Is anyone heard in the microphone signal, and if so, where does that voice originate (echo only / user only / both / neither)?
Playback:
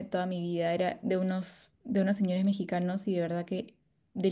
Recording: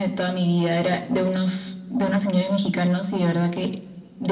echo only